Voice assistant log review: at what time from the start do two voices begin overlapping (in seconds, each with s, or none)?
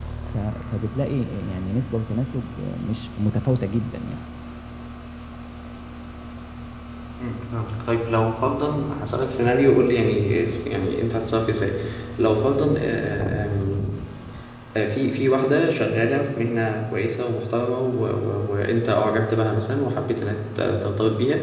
none